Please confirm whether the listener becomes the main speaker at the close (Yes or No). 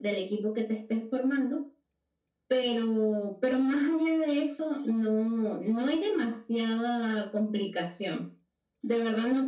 No